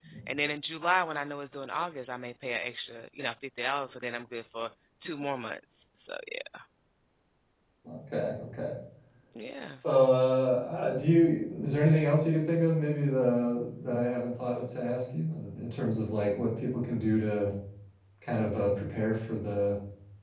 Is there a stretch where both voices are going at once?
No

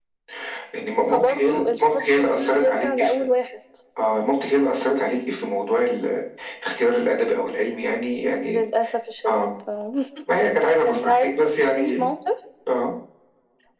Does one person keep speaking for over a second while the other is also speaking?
Yes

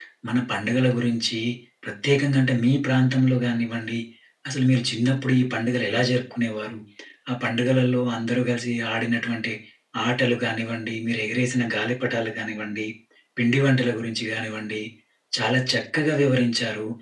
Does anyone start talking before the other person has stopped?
No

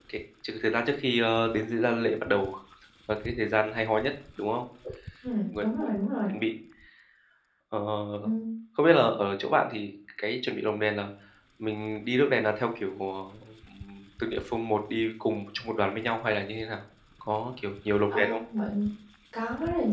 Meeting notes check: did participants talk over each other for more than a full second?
No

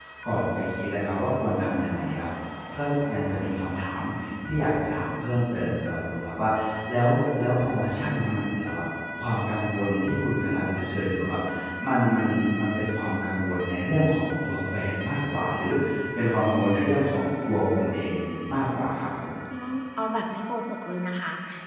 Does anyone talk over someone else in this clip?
No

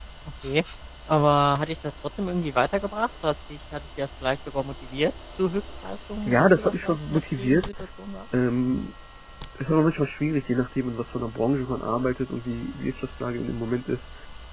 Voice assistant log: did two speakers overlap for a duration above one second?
Yes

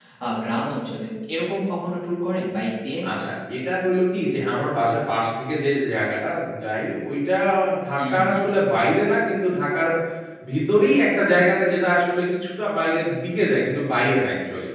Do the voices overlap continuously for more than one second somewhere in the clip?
No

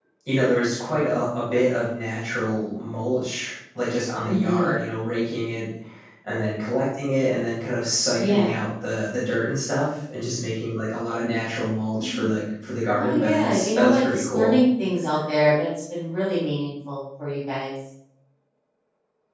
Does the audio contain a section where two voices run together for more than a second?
Yes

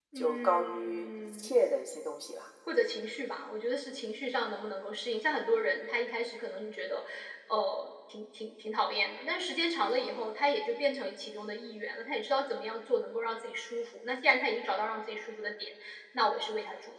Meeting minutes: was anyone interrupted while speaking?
Yes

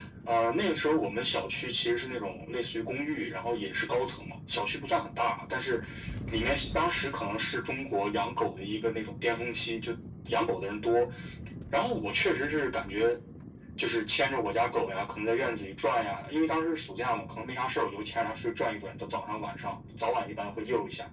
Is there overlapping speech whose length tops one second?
No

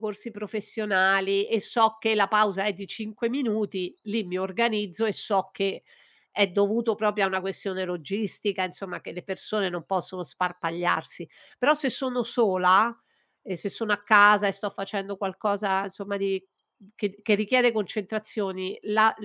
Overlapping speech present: No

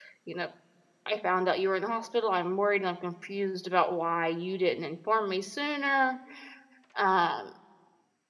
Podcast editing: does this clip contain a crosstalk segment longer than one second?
No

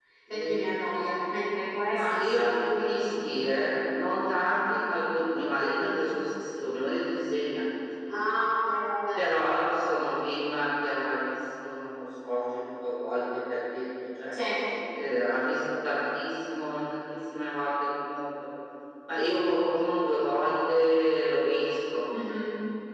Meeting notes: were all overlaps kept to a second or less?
Yes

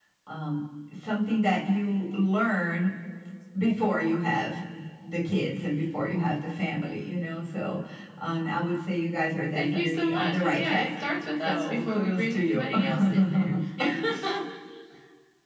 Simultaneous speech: Yes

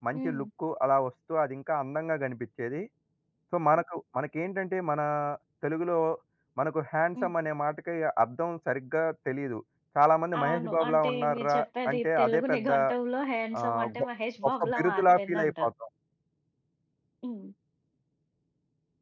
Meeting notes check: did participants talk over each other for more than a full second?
Yes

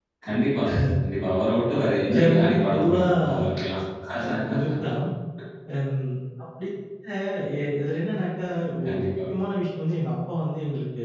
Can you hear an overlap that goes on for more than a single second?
Yes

